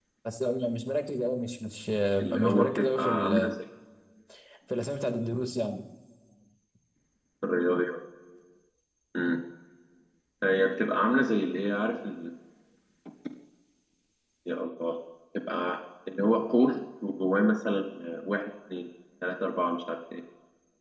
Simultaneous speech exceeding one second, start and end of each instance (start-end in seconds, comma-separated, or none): 2.2-3.5